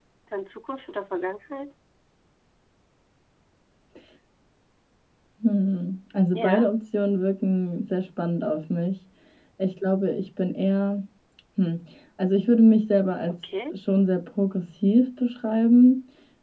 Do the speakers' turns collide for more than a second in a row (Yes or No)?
No